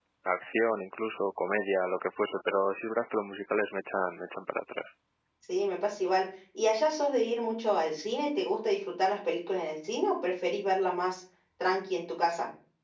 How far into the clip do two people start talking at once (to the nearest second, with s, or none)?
none